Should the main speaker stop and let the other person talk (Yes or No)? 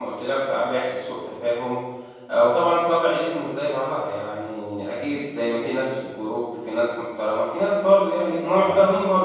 No